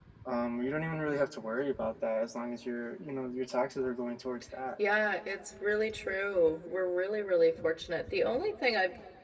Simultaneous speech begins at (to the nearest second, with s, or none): none